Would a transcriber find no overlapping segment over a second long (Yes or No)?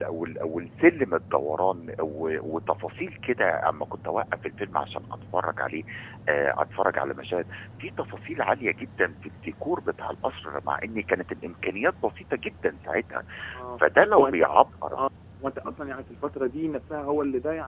Yes